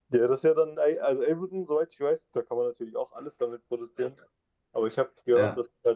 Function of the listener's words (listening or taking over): listening